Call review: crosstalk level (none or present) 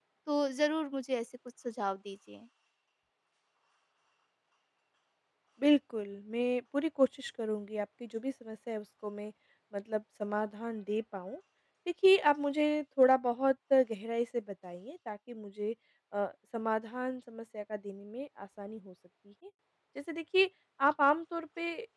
none